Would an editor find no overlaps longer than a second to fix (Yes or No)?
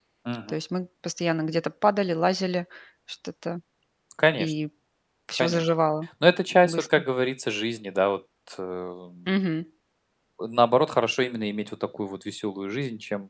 Yes